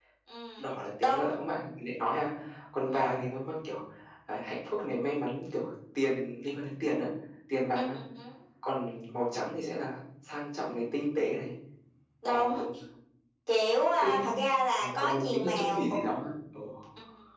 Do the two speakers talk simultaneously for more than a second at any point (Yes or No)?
Yes